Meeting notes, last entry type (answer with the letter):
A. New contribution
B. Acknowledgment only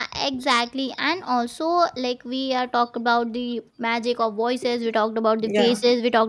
B